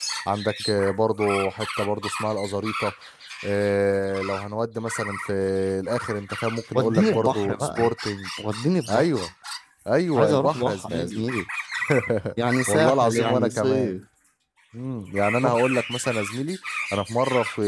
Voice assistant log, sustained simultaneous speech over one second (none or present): present